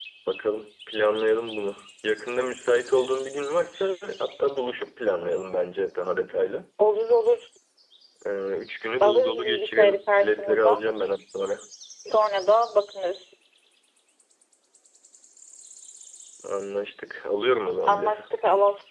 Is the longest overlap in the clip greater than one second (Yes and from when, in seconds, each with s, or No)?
Yes, from 9.0 s